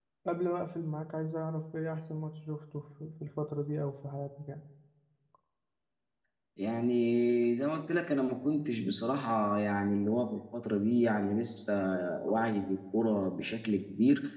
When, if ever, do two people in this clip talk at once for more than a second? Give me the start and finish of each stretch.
none

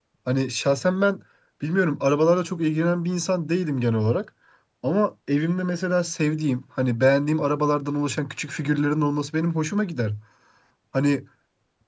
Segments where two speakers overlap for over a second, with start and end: none

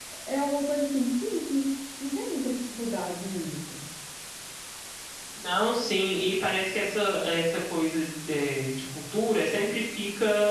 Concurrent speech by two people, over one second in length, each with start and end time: none

